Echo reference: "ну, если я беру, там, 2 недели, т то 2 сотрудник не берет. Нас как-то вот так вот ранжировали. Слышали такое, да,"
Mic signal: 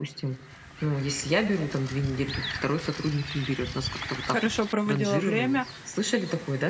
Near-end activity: present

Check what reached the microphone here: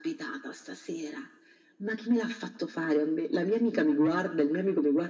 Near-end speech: none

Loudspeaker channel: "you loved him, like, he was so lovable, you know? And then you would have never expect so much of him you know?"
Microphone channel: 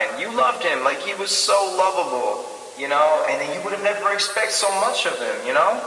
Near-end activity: none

